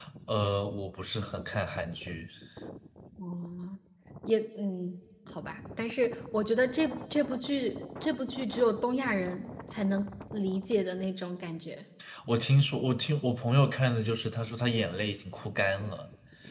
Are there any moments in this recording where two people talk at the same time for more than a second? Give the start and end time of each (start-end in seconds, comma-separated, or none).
none